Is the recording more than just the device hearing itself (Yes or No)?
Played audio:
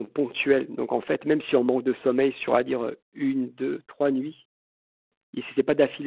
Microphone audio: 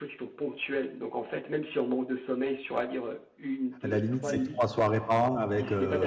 Yes